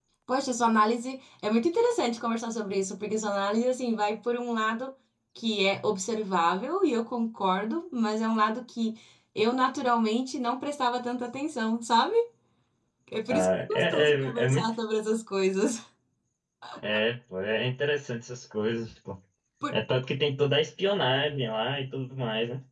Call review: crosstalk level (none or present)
present